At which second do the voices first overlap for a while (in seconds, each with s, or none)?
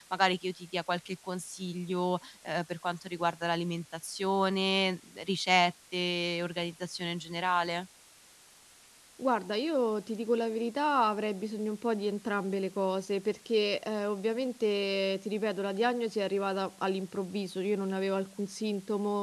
none